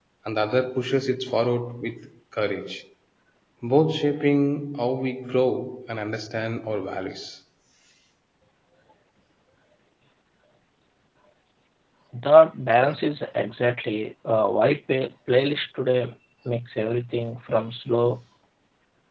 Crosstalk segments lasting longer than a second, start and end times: none

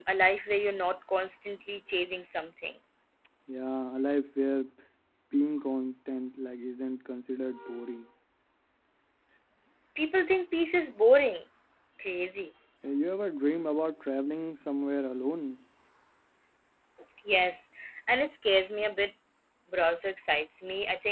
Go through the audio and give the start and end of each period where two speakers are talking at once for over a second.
none

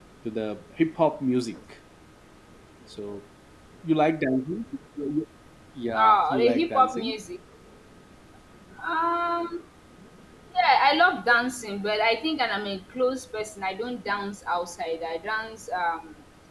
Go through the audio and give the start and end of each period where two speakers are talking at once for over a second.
5.9-7.2

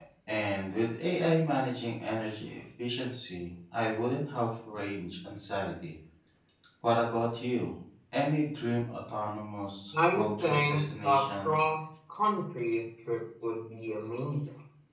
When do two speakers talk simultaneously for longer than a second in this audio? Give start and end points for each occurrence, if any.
10.1-11.5

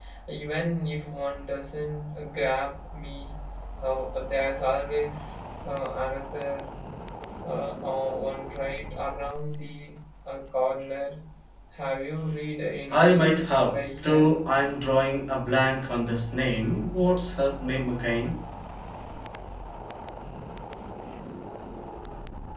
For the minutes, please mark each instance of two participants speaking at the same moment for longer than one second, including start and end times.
12.9-14.3

